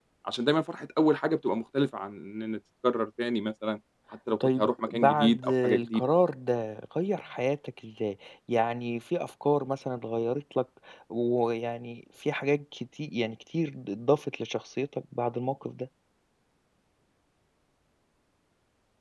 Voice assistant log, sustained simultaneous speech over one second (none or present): present